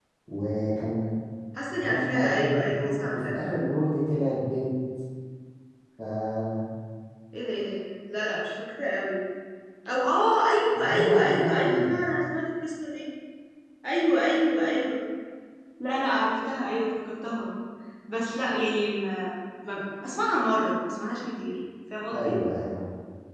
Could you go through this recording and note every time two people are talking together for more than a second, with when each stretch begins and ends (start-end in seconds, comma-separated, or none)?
1.7-3.6, 10.7-11.9